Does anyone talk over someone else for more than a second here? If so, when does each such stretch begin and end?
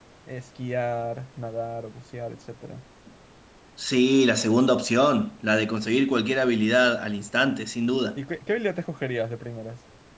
none

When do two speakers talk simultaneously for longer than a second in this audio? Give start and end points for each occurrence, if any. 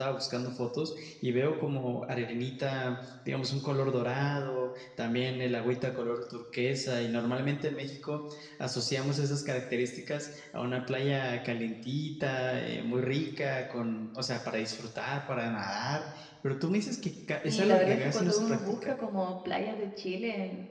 17.4-18.9

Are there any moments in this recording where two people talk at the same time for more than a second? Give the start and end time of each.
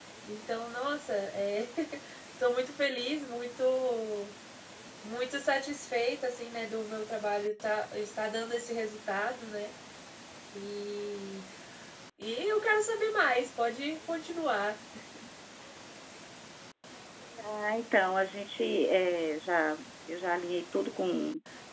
none

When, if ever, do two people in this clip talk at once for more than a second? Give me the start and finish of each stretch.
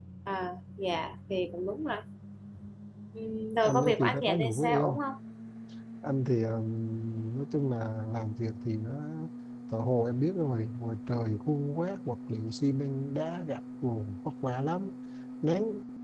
3.6-5.0

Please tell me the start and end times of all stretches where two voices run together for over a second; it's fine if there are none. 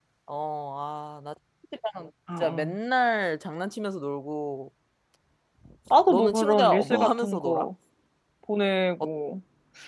6.1-7.7

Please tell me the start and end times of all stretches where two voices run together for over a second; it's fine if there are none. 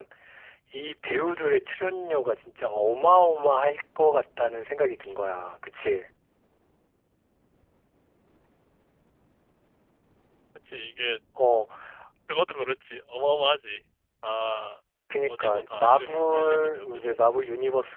15.2-17.1

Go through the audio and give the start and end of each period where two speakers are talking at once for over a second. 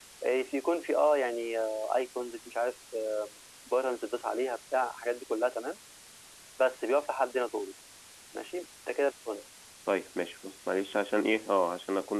none

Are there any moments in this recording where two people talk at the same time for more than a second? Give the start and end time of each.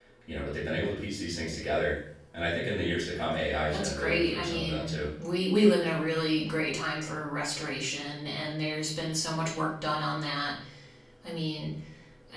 3.7-5.0

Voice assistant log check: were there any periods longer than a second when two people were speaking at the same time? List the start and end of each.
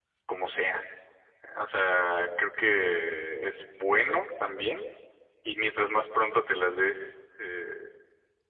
none

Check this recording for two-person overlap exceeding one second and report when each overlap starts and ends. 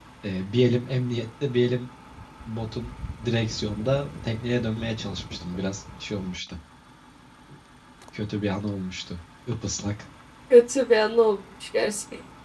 none

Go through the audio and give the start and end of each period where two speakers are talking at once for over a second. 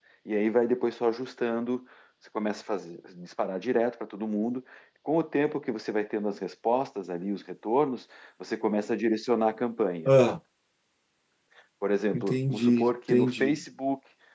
12.1-13.6

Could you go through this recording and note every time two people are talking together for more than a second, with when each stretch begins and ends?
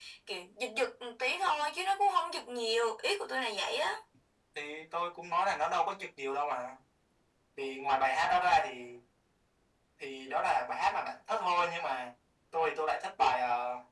none

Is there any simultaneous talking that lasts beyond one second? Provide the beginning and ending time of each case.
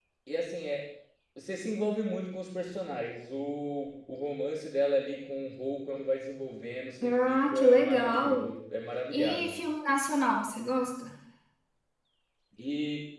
7.0-8.4

